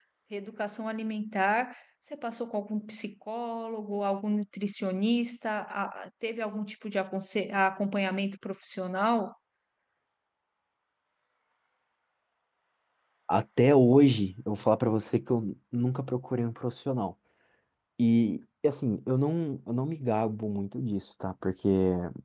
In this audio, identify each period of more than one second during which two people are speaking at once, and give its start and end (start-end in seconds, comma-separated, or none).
none